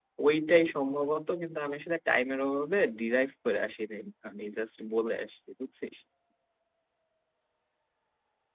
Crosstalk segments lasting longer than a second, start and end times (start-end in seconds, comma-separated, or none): none